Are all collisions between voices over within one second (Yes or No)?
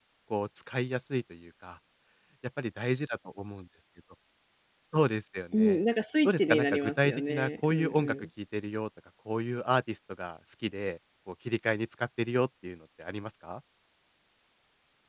No